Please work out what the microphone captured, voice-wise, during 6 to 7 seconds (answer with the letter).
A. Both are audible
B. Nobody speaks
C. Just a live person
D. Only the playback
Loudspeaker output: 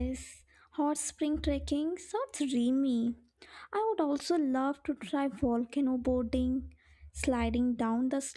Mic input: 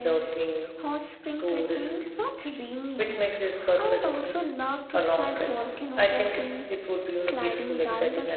A